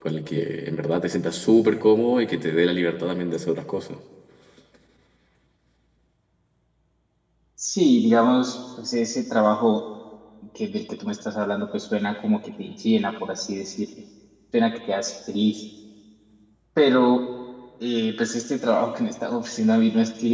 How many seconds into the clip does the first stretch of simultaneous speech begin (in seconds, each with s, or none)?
none